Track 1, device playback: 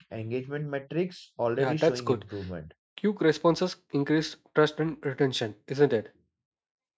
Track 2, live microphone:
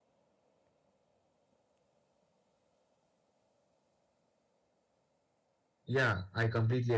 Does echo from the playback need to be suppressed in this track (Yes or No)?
No